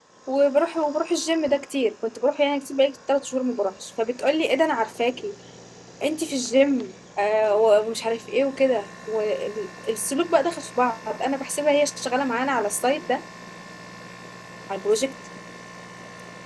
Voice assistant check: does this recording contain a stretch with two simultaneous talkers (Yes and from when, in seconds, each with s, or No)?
No